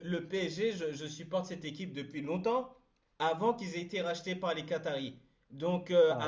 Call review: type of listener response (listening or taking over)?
listening